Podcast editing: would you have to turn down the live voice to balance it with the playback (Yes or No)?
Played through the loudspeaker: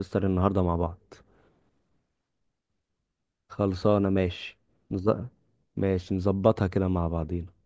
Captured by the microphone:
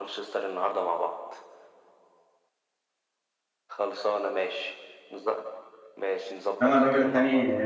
Yes